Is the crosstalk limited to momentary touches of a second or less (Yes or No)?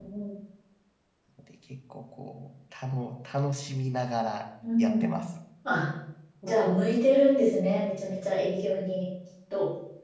Yes